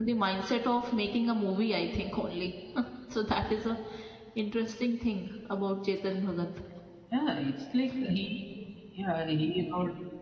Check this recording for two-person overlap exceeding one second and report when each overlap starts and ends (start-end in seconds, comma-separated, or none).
none